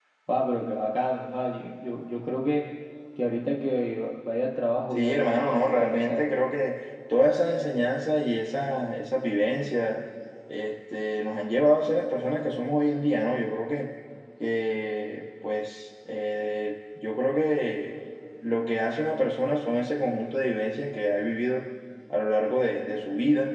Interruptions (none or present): present